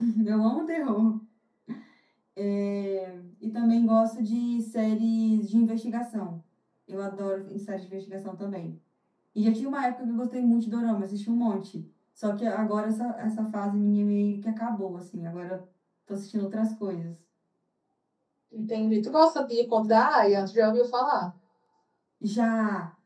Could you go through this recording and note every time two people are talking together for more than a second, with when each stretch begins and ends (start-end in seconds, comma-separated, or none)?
none